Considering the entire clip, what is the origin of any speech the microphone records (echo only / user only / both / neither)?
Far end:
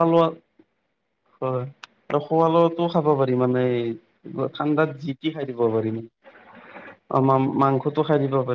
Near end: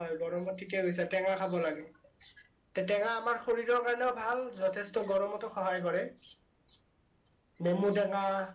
user only